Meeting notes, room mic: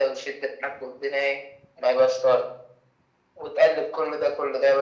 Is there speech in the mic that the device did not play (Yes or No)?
No